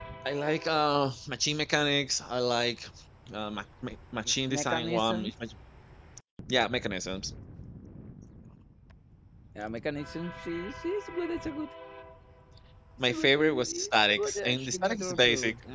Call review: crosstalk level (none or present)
present